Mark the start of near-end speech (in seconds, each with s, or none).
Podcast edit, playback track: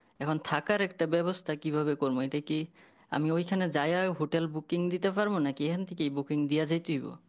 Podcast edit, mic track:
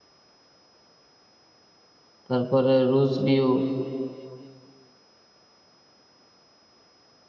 2.3 s